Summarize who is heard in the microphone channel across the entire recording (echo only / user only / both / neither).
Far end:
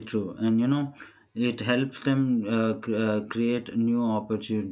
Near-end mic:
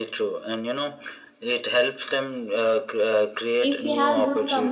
both